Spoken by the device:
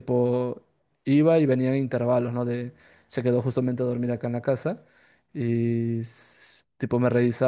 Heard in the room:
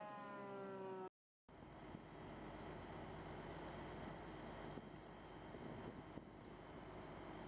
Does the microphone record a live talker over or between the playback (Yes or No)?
No